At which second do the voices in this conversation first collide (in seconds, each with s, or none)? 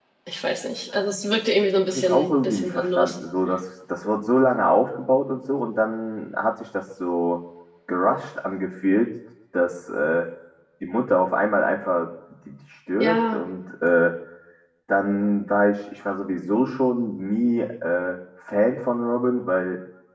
1.9 s